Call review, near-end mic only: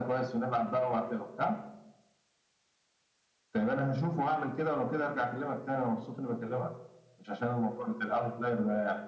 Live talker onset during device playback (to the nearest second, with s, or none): none